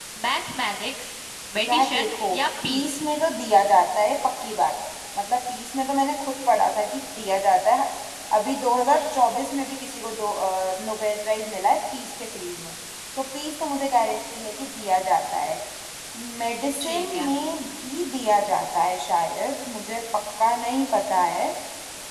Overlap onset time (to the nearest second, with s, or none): 2 s